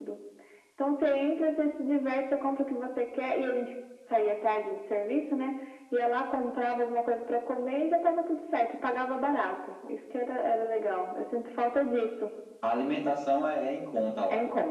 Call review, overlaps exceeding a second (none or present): none